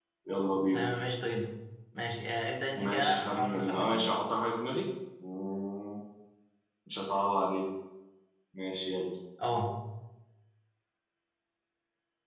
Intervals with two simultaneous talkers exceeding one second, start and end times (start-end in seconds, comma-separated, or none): 2.8-4.1